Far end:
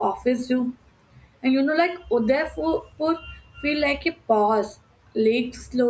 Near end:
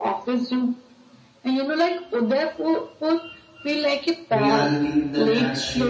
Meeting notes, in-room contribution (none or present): present